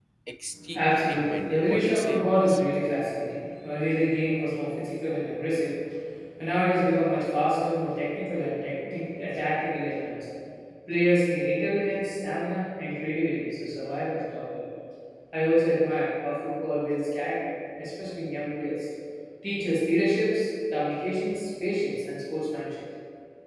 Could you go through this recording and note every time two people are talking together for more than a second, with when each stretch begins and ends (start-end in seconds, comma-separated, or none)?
0.7-2.6